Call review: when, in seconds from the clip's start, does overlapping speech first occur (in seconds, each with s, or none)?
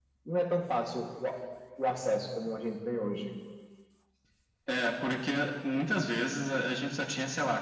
none